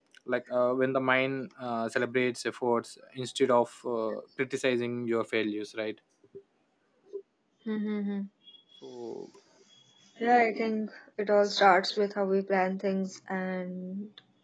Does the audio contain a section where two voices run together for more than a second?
No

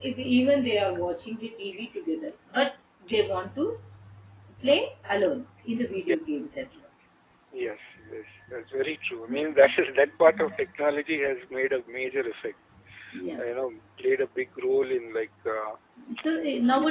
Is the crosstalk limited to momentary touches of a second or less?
Yes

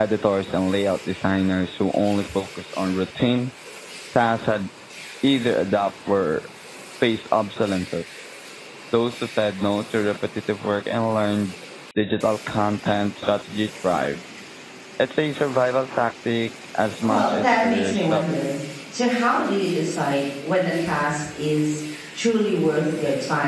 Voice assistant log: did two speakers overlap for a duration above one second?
Yes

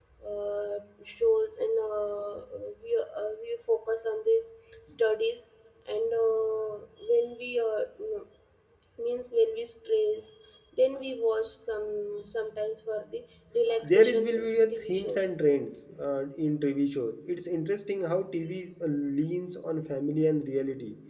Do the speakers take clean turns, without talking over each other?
No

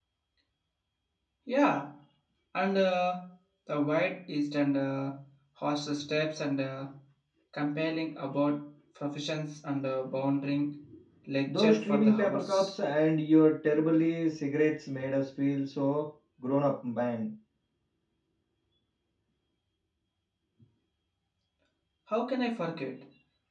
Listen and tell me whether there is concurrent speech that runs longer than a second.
Yes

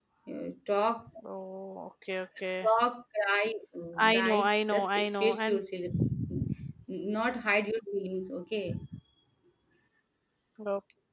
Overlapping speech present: Yes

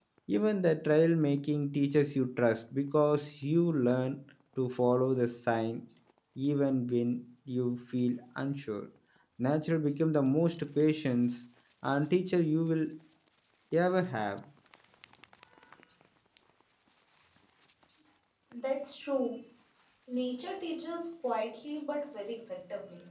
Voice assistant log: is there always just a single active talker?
Yes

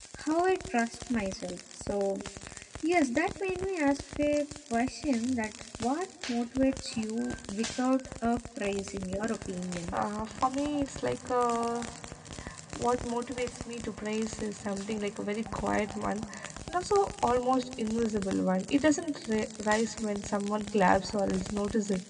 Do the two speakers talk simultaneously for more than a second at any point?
No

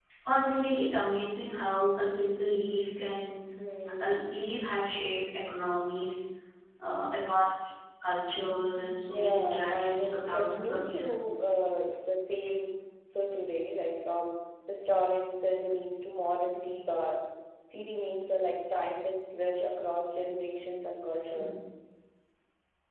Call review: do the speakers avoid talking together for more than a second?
No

